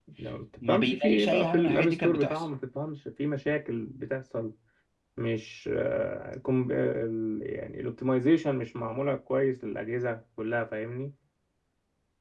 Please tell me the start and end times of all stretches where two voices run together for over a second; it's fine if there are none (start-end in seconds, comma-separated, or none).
0.7-2.4